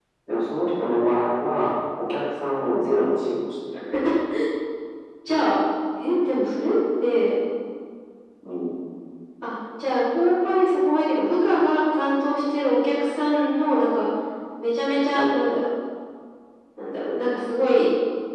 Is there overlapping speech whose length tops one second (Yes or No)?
No